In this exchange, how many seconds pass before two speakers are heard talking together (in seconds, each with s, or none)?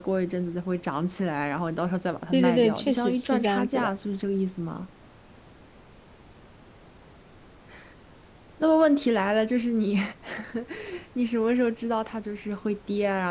2.3 s